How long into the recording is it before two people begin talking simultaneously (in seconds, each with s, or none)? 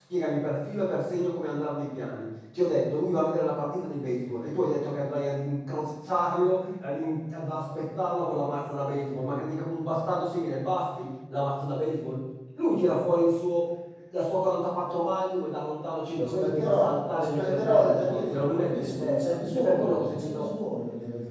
16.1 s